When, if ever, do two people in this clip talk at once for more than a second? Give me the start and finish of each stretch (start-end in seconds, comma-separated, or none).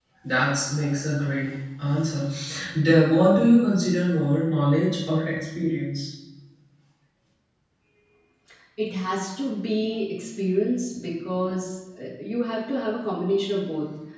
none